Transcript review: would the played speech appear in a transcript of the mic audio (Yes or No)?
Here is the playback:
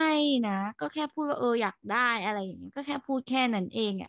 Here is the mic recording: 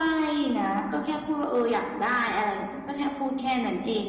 Yes